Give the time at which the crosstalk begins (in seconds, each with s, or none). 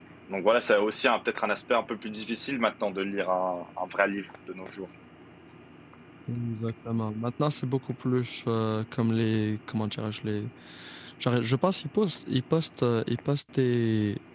none